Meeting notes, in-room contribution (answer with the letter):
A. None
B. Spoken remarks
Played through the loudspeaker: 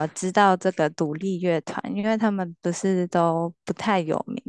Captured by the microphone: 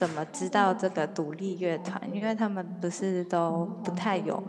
B